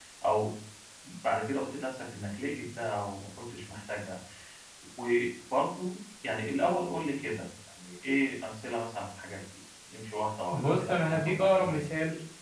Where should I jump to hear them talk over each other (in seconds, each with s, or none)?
10.5 s